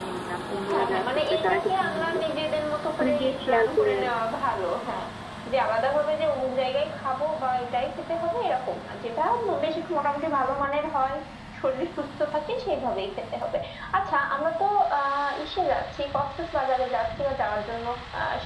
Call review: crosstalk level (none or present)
present